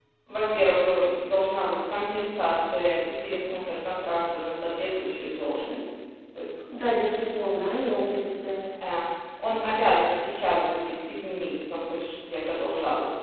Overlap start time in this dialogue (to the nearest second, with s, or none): none